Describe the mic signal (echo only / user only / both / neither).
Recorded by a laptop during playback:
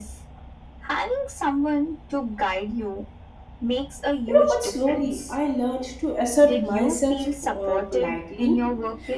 both